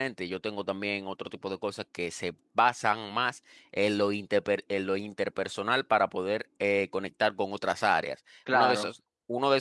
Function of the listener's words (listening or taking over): listening